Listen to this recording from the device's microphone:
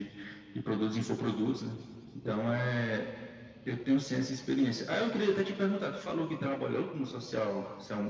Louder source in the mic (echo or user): echo